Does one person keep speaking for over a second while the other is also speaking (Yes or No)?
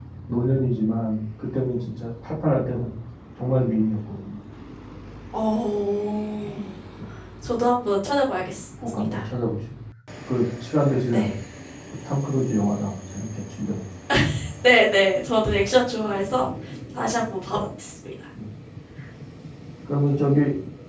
No